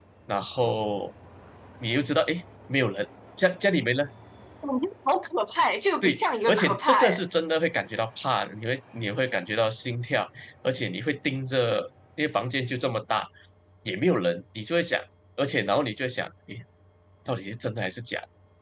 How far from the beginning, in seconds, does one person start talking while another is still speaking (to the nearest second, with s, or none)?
6 s